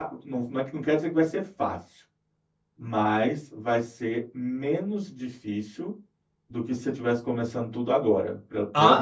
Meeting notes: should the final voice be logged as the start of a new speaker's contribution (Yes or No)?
Yes